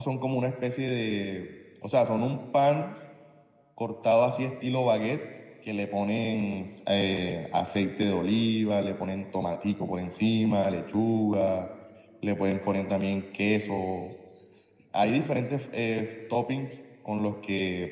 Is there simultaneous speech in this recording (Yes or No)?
No